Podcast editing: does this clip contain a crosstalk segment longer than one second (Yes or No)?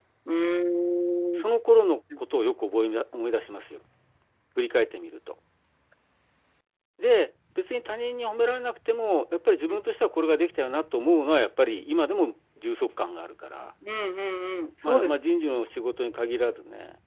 No